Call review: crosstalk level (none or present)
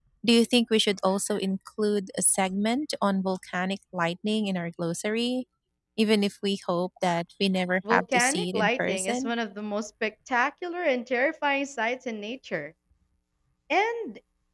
present